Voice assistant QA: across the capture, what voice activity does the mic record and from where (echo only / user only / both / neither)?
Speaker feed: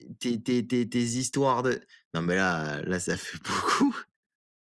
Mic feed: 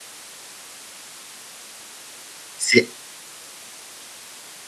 user only